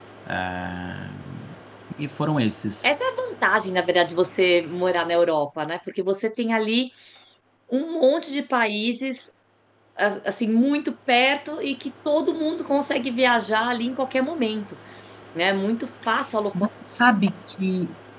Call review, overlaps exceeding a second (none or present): none